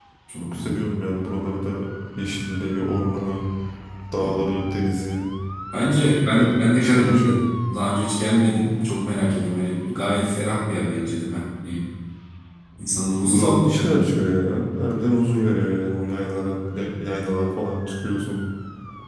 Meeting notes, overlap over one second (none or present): present